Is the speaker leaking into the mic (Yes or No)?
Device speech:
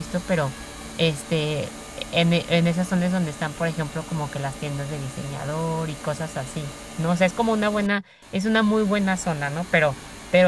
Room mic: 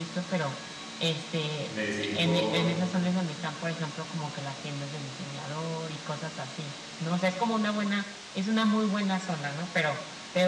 Yes